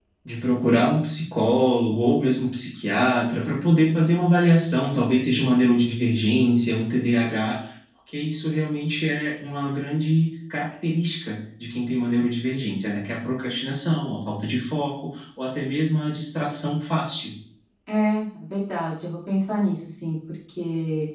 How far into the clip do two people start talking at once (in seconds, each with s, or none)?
none